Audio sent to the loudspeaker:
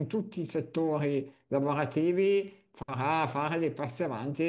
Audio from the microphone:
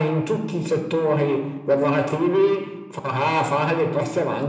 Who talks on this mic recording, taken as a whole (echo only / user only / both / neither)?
echo only